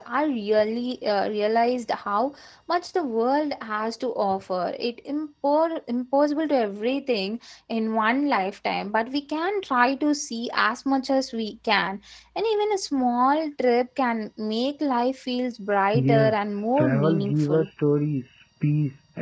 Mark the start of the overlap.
15.9 s

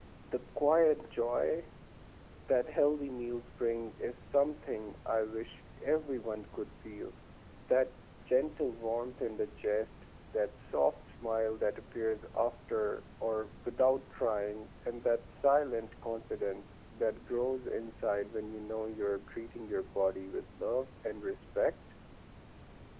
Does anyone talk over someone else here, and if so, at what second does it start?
none

